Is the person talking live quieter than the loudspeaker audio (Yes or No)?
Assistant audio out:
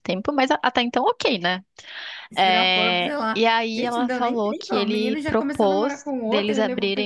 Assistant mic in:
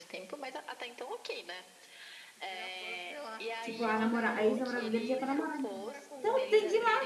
No